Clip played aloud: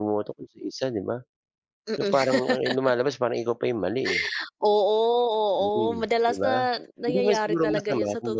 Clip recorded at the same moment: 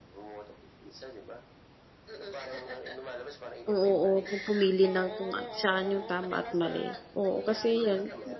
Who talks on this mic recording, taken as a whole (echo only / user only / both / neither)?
both